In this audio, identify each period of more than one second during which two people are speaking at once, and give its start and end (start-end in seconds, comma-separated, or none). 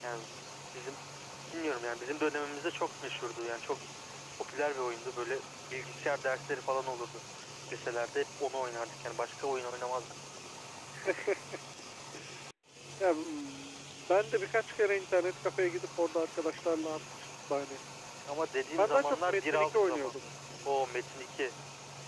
18.8-20.1